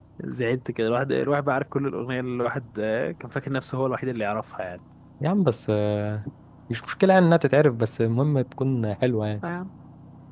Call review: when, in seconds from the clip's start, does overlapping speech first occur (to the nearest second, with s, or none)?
none